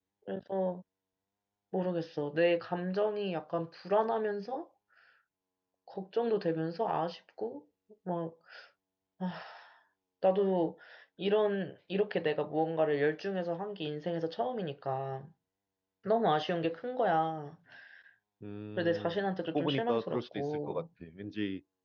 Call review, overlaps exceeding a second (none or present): present